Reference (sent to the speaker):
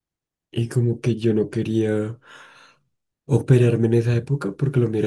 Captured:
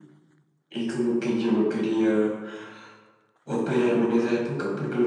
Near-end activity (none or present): none